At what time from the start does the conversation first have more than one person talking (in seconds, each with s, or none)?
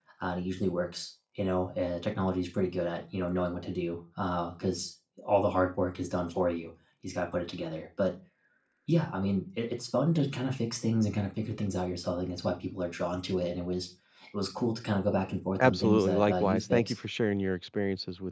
15.6 s